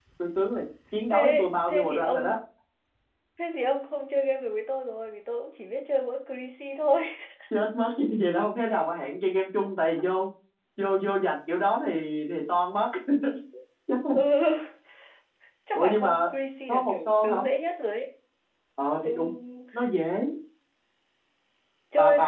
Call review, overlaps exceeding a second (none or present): present